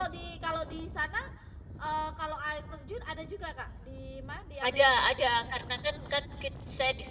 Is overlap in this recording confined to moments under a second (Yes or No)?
Yes